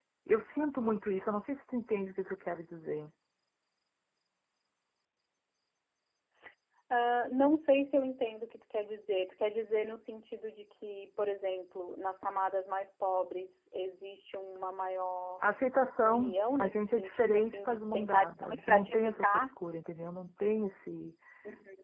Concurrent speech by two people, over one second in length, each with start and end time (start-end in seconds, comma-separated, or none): 16.0-19.5